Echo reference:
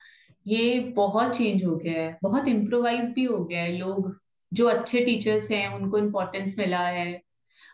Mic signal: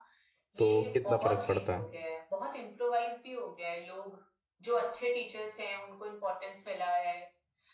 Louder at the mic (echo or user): user